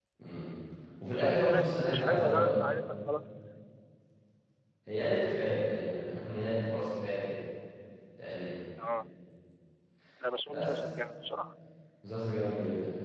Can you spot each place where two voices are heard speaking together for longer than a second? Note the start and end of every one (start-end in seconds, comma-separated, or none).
1.1-2.5